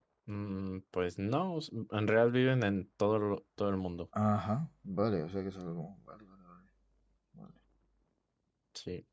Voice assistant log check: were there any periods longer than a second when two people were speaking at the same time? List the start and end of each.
none

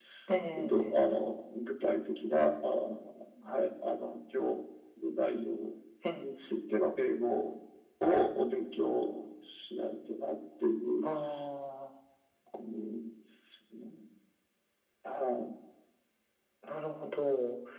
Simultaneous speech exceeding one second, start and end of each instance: none

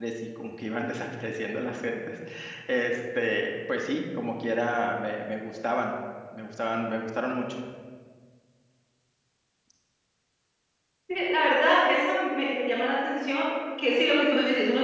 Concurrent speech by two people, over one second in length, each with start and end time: none

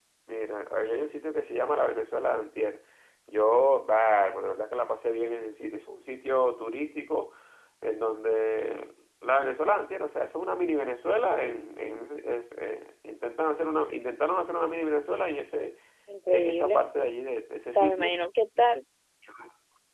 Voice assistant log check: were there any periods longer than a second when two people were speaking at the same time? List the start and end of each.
none

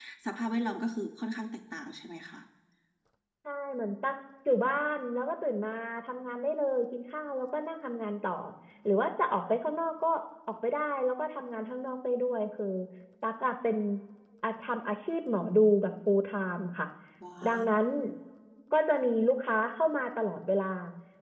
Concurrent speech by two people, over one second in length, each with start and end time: none

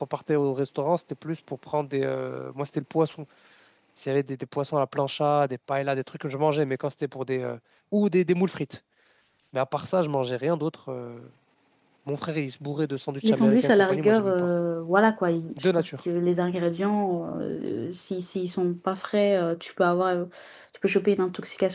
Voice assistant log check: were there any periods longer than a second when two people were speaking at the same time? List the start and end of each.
13.2-14.5

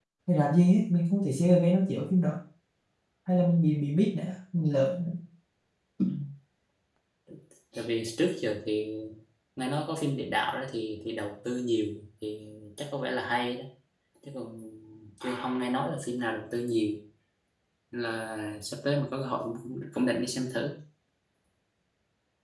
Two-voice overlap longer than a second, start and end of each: none

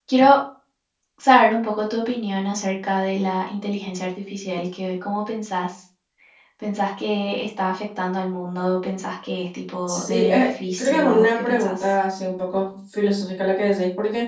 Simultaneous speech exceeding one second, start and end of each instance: 9.9-11.9

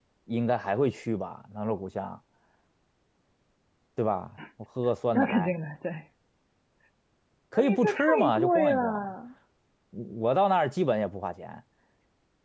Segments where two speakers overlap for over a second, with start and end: 7.5-9.1

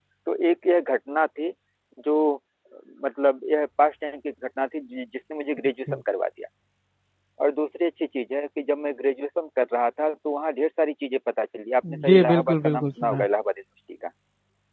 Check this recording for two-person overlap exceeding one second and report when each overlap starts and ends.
12.1-13.3

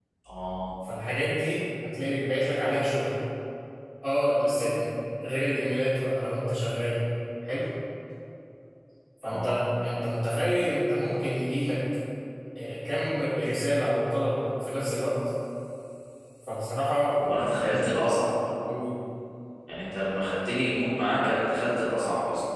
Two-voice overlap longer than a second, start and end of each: none

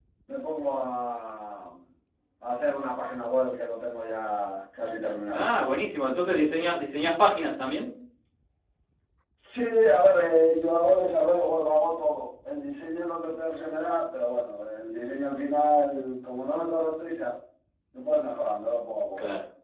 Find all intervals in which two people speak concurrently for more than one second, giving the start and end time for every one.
none

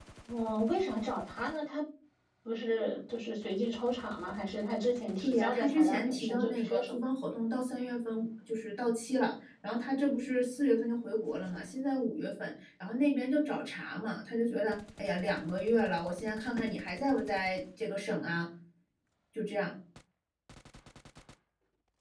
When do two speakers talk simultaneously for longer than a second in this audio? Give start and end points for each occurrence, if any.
5.2-7.0

